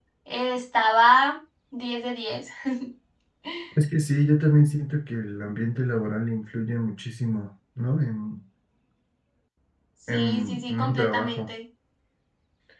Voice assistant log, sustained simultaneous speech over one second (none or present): present